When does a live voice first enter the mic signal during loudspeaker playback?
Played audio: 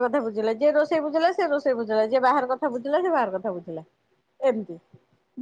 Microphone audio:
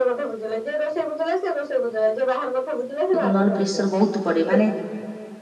3.1 s

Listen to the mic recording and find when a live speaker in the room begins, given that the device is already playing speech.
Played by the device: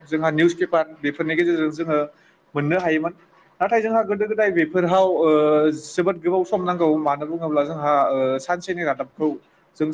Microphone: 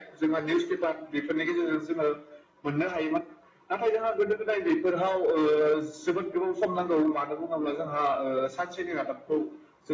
none

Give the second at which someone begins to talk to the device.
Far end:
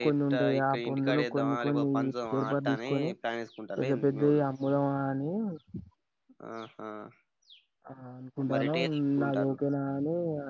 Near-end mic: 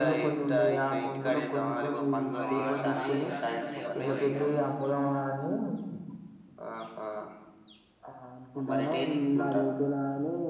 2.3 s

